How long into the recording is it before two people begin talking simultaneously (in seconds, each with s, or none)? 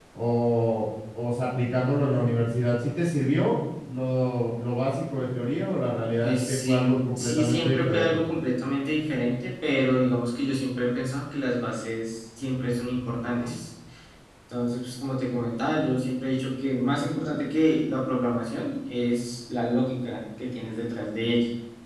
6.2 s